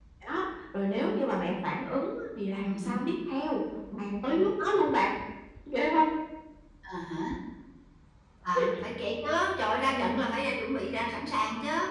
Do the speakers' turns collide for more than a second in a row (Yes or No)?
No